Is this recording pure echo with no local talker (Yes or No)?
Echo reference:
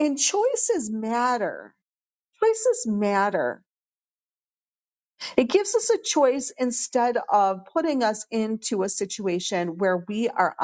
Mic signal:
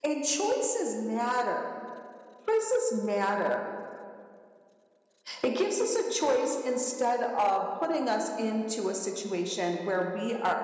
Yes